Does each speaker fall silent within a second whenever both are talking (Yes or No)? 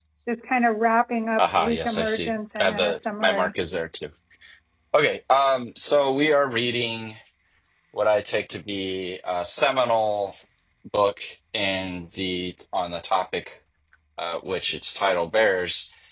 No